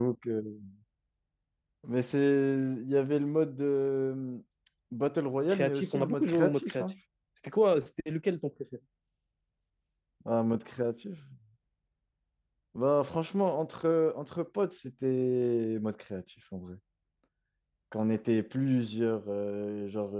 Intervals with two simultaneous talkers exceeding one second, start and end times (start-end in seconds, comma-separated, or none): 5.5-6.8